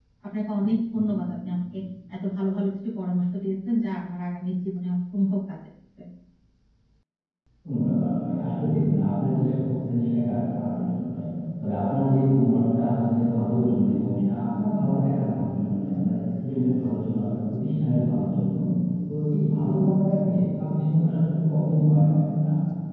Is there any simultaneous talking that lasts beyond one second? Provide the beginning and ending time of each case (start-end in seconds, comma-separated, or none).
none